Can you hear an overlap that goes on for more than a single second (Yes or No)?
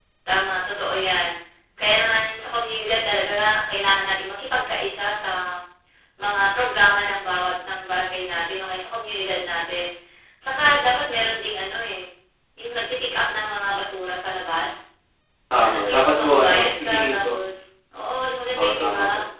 Yes